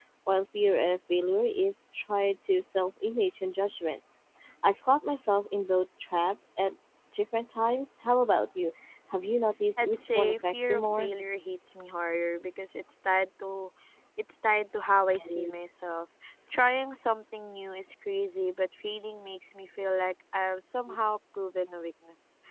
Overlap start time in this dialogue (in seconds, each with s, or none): 9.8 s